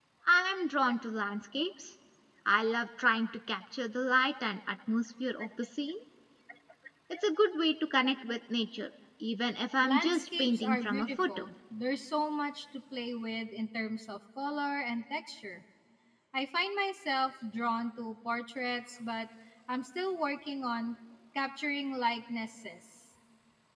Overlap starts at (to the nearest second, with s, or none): 10 s